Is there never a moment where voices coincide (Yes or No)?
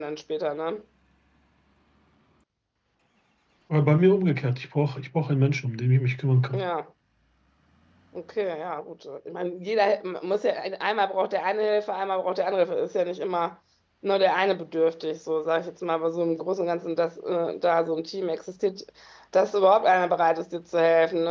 Yes